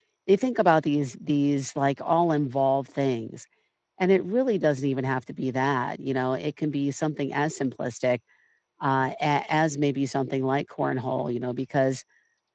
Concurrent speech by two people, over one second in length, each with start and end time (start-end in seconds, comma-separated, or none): none